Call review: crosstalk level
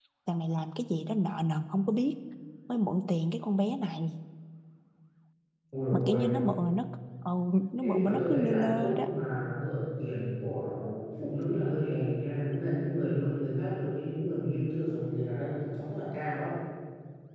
present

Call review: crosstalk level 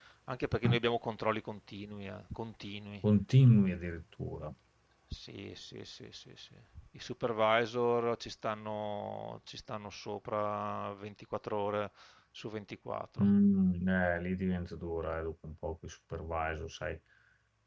none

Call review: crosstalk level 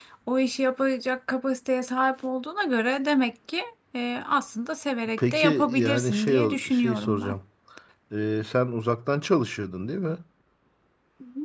present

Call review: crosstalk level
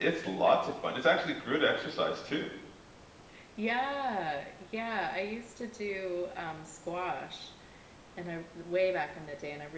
none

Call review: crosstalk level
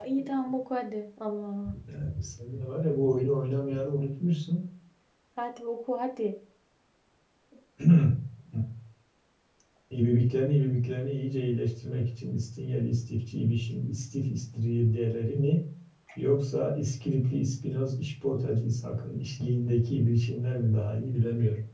none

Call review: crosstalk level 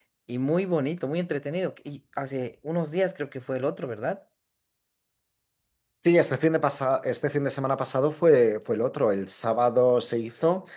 none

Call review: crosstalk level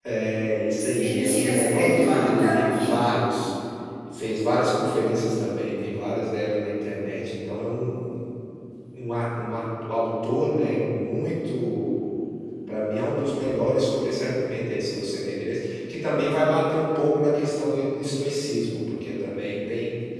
present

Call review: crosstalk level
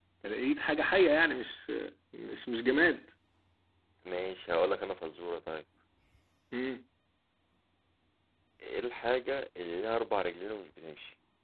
none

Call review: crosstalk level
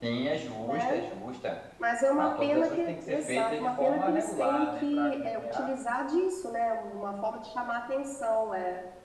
present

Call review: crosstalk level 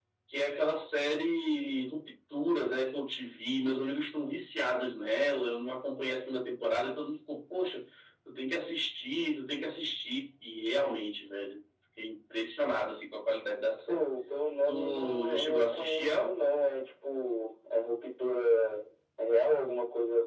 present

